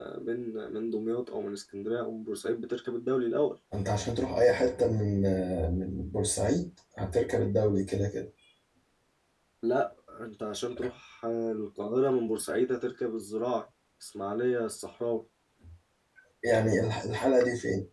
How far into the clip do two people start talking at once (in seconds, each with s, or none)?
none